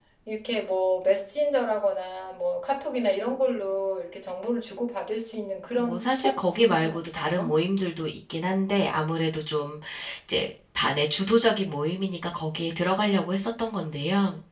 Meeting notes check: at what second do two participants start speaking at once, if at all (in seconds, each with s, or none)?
5.8 s